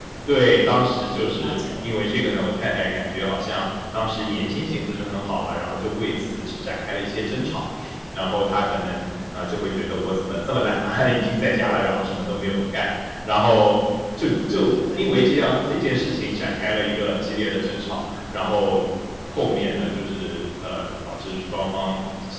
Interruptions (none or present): present